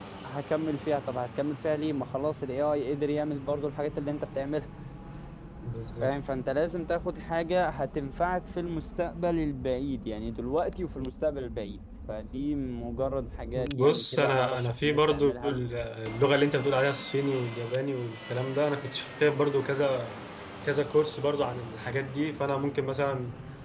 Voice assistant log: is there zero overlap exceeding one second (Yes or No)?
No